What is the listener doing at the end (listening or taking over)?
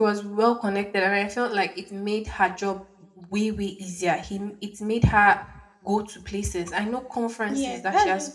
taking over